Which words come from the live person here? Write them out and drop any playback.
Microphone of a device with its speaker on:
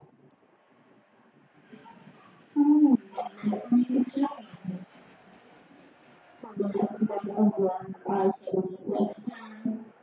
none

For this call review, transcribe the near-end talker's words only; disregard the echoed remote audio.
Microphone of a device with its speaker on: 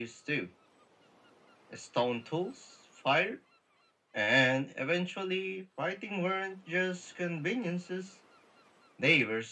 none

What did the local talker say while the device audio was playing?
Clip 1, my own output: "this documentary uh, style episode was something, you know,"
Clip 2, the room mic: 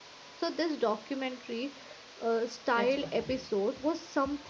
that's what I feel.

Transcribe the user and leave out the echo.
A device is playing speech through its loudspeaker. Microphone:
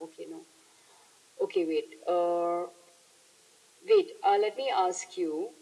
none

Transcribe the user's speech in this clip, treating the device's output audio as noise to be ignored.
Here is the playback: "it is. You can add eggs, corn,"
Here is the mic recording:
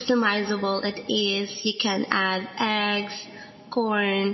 none

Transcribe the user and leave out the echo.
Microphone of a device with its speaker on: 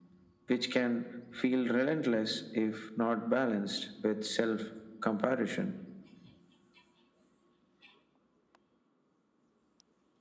none

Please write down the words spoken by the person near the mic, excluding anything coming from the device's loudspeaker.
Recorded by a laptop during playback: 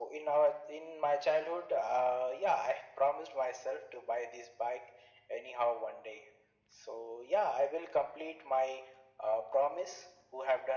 none

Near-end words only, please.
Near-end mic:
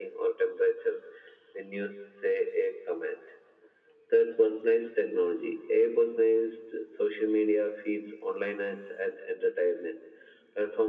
none

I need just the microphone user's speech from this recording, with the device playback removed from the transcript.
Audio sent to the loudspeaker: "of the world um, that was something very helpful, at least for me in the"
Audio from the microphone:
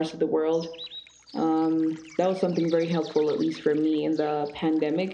none

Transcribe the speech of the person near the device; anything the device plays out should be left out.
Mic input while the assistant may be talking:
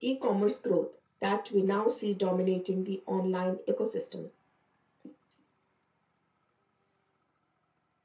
none

